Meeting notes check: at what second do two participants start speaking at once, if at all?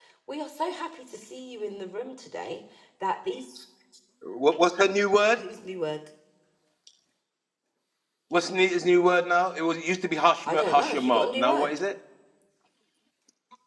10.5 s

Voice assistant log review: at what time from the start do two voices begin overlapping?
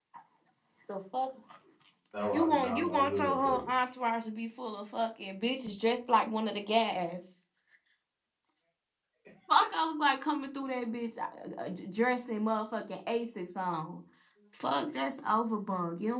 2.3 s

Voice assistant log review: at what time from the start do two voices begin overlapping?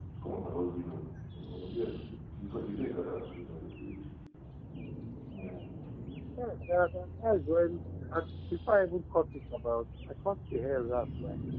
none

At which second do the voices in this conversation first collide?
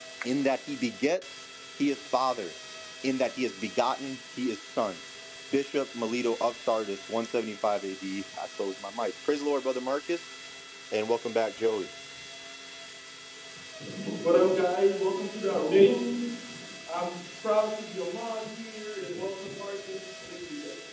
none

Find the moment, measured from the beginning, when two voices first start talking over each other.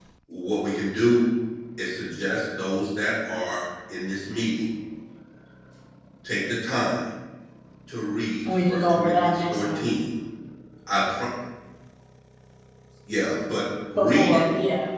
8.5 s

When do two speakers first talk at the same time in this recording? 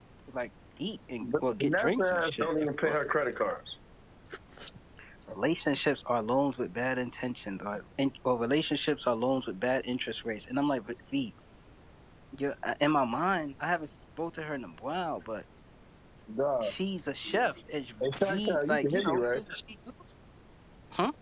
1.2 s

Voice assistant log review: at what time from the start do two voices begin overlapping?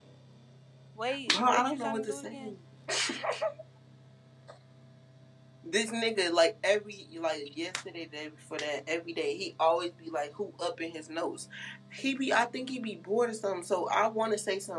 1.3 s

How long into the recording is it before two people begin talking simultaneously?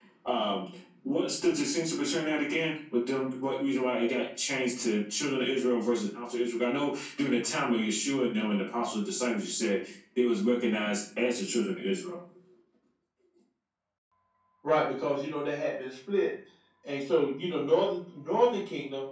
none

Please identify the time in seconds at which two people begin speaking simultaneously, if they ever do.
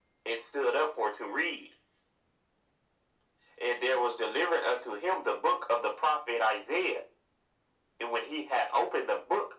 none

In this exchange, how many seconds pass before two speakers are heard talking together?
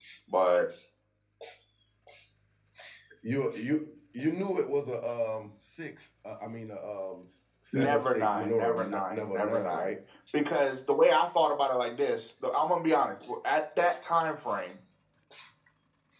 7.7 s

